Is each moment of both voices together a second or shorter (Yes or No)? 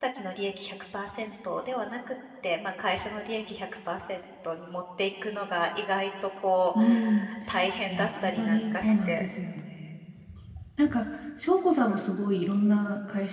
No